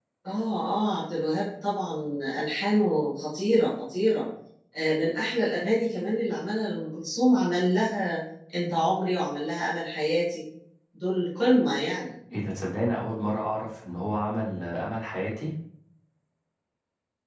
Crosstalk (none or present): none